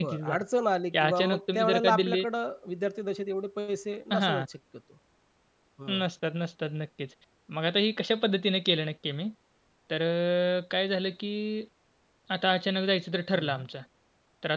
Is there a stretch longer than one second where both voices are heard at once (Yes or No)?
Yes